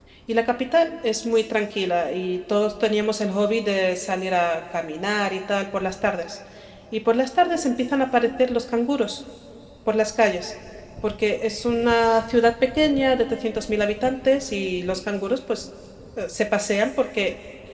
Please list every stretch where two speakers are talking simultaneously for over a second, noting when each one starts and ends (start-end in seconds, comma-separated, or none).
none